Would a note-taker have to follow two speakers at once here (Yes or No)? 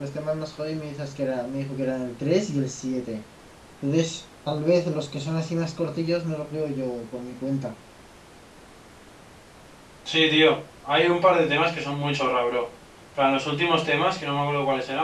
No